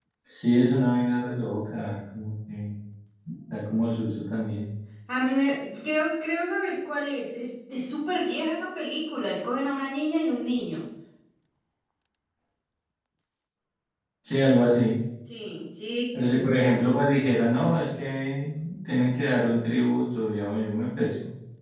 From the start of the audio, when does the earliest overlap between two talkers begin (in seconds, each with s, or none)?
none